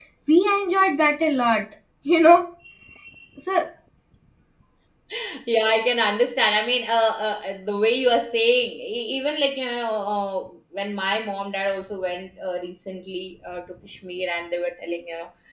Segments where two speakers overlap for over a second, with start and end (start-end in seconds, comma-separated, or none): none